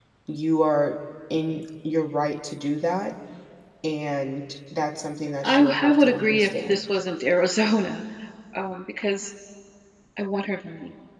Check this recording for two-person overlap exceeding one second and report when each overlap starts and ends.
5.4-6.8

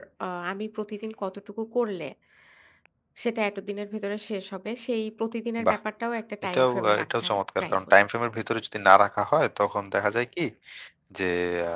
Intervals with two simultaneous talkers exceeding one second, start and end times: 6.5-7.8

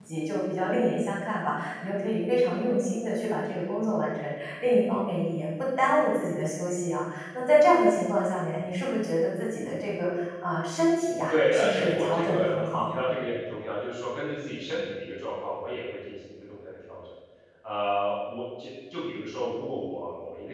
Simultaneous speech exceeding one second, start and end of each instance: 11.3-13.0

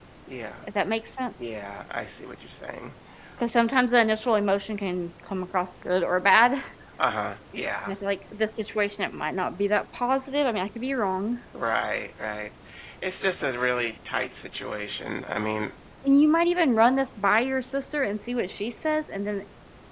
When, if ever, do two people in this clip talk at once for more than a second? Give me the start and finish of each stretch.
none

